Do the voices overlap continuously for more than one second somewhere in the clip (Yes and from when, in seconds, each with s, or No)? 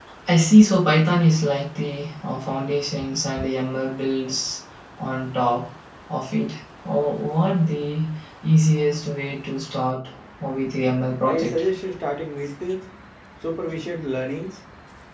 No